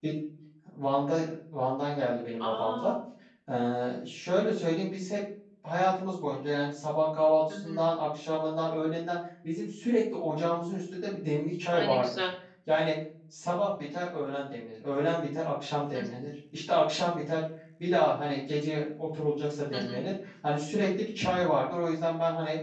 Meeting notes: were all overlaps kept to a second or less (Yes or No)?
Yes